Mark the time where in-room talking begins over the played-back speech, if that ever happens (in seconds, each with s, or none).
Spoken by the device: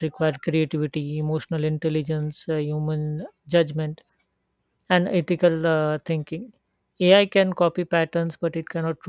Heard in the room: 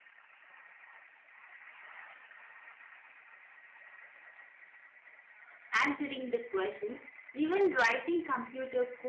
5.7 s